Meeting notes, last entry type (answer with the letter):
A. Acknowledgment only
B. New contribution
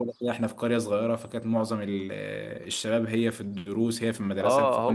B